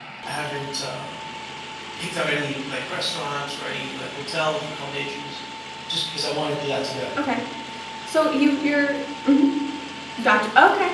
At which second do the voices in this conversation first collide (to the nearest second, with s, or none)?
none